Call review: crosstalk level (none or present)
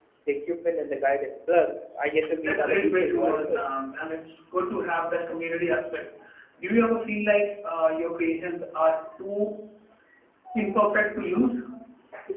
present